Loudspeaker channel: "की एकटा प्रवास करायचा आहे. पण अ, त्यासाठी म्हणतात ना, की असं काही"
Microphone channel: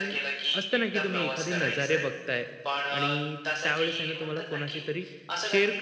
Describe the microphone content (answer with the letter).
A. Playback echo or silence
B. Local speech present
B